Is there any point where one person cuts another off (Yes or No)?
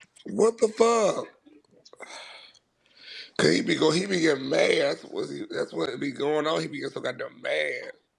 No